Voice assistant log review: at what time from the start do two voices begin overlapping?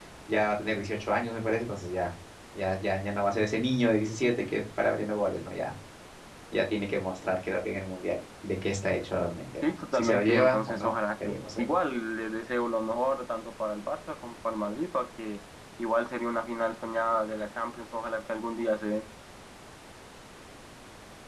9.6 s

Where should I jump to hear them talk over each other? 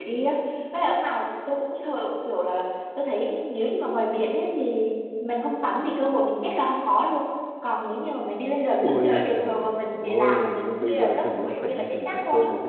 8.8 s

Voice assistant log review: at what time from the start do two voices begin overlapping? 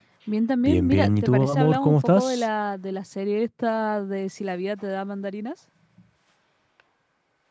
0.6 s

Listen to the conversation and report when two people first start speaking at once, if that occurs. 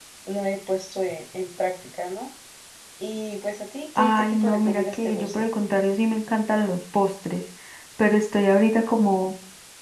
4.0 s

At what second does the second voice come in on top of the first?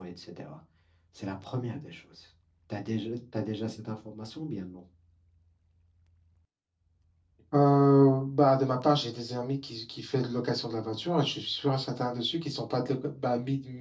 none

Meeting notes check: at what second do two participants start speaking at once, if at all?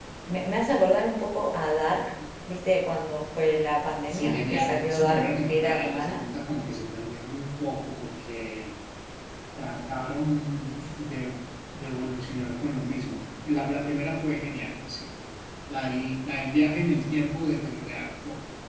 4.1 s

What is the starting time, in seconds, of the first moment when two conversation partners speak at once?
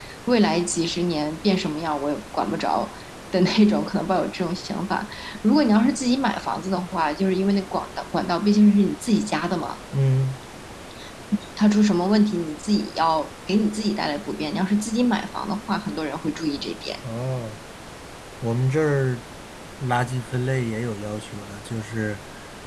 none

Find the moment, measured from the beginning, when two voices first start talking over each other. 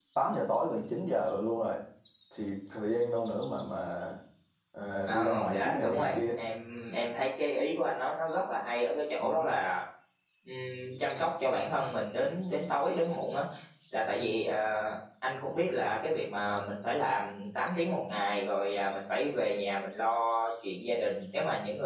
5.1 s

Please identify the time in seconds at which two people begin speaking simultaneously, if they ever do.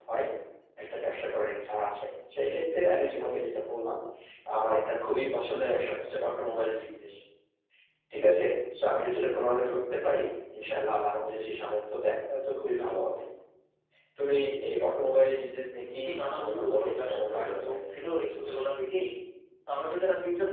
15.8 s

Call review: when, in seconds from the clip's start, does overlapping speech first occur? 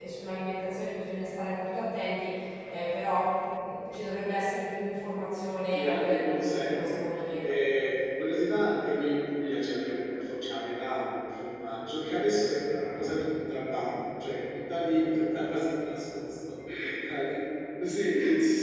5.7 s

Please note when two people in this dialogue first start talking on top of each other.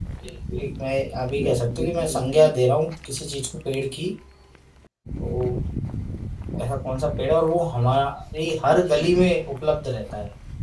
1.1 s

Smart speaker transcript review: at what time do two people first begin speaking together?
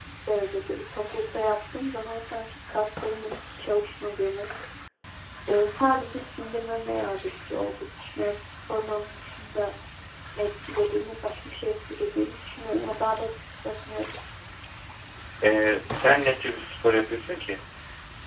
none

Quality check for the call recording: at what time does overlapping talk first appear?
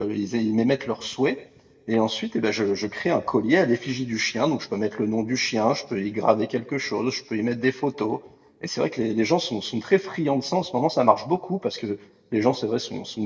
none

